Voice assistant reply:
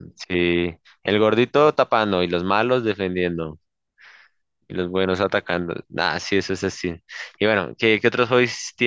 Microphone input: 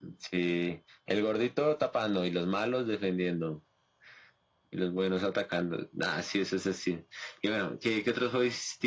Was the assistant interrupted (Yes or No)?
No